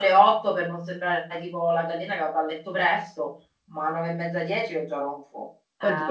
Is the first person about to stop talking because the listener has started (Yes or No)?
Yes